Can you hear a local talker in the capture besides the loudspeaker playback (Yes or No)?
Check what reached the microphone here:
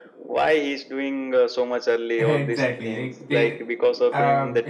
Yes